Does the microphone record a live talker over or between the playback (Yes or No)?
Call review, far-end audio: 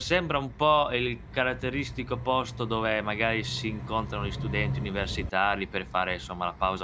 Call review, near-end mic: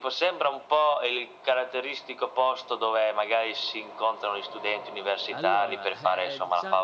Yes